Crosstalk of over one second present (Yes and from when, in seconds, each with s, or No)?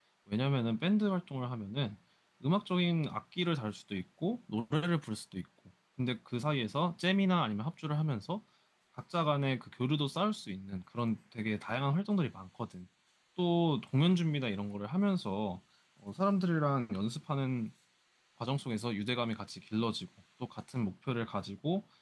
No